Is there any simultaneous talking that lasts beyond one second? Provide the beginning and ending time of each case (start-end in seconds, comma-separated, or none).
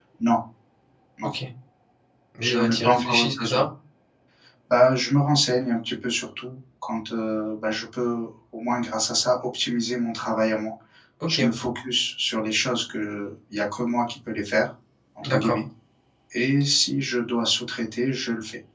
2.4-3.6